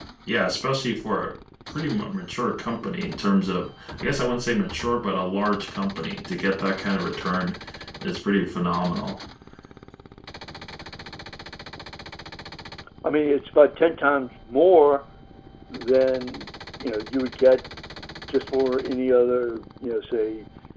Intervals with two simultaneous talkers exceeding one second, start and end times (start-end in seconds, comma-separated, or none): none